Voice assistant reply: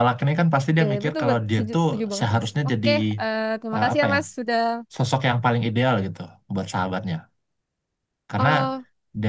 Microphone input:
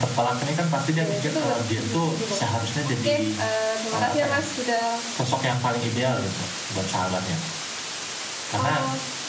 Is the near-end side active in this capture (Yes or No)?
No